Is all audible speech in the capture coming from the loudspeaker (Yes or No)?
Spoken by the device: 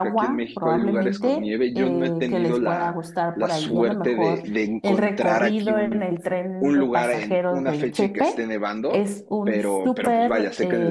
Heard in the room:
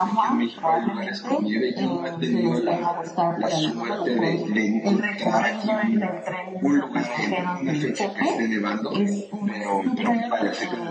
Yes